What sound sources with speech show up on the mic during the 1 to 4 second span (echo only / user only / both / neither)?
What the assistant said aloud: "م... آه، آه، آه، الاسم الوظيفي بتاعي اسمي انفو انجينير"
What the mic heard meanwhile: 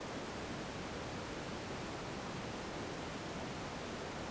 neither